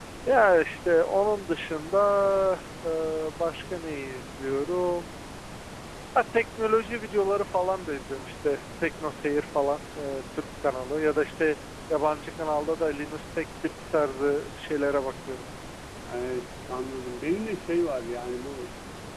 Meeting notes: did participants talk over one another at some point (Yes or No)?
No